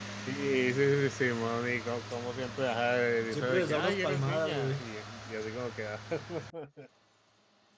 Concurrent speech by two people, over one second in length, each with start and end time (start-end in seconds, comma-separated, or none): 3.3-4.8